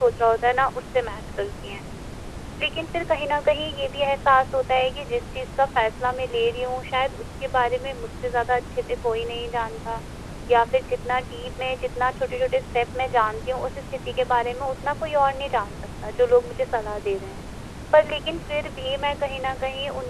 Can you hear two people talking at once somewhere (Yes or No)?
No